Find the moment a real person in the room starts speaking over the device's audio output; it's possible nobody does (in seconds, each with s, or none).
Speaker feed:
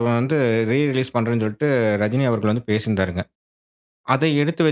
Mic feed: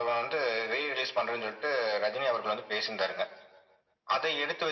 none